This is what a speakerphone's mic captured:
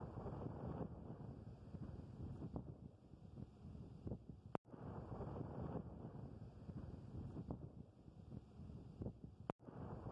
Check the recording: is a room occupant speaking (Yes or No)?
No